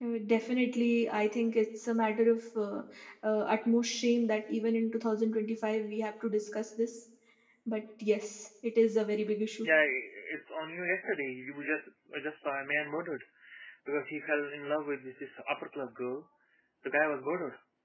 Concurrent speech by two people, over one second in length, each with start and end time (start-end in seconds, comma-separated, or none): none